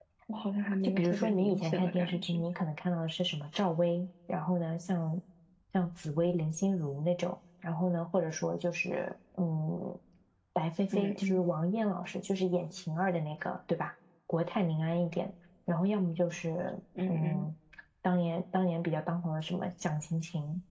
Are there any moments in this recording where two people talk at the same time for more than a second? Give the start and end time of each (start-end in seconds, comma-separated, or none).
0.8-2.4